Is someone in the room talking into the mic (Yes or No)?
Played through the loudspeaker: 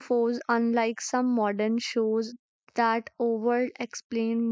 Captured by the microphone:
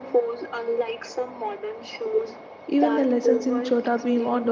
Yes